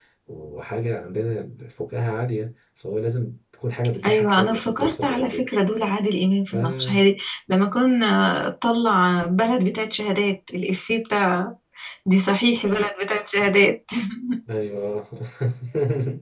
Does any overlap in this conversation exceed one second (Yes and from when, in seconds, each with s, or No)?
Yes, from 4.1 s